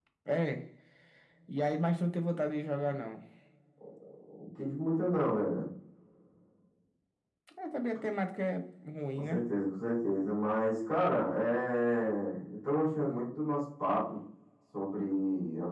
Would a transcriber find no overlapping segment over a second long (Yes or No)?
Yes